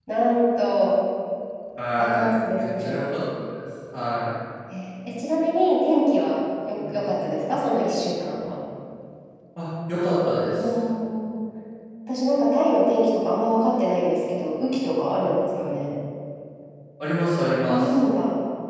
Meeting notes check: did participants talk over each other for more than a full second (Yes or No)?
Yes